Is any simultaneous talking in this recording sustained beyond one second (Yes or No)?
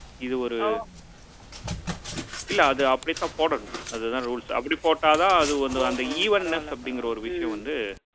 Yes